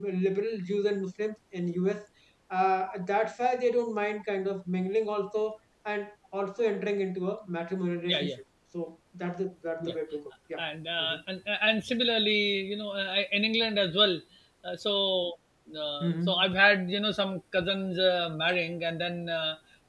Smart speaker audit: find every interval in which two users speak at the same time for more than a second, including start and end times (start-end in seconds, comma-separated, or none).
none